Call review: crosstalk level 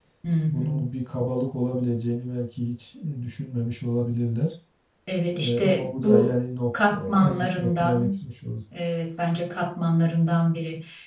present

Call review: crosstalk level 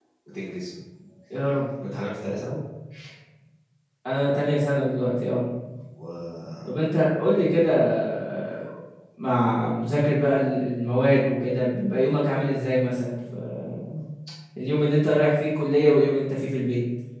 none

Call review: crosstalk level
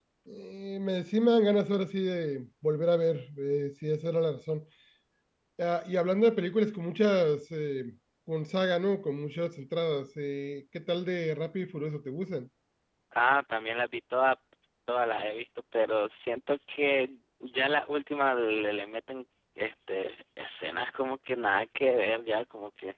none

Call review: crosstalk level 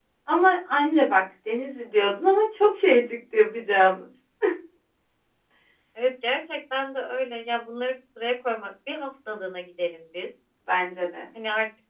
none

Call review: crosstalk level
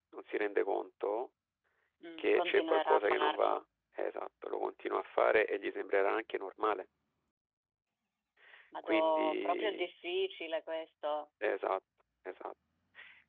present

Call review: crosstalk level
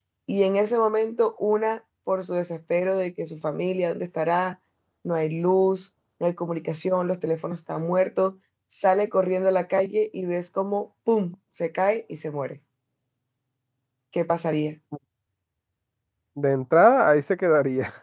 none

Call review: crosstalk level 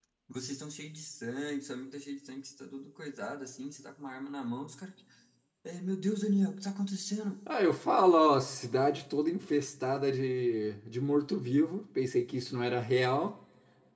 none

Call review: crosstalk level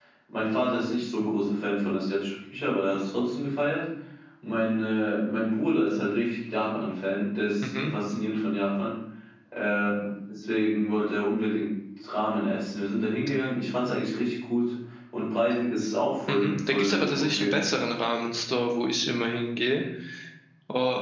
present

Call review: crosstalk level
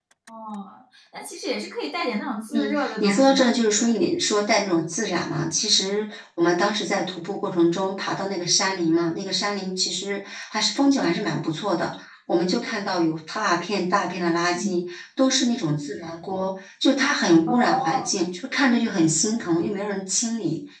present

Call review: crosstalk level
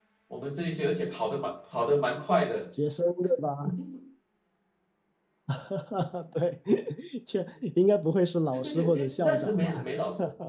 present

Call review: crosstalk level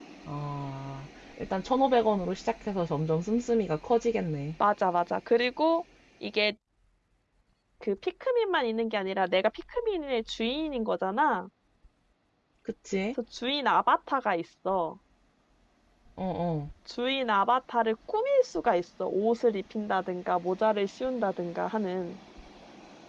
none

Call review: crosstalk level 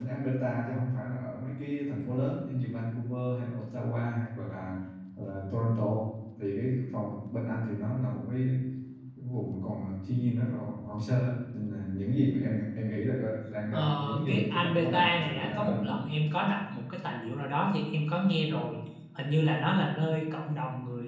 present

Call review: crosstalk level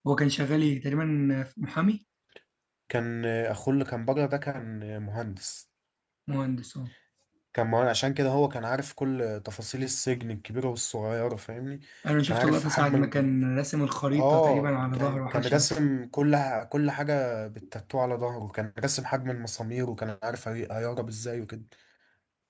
present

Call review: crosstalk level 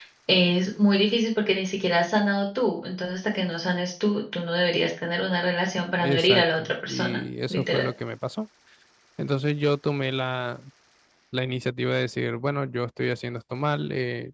present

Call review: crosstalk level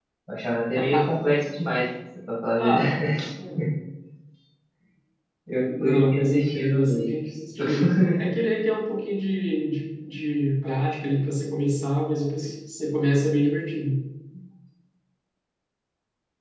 present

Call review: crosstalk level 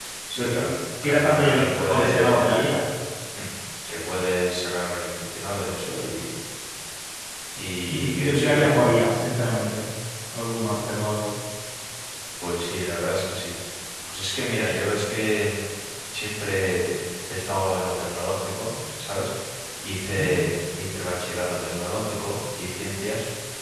present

